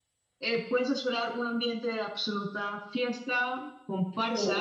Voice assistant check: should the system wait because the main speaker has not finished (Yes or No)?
Yes